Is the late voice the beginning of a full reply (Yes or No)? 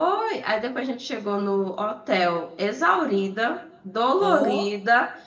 No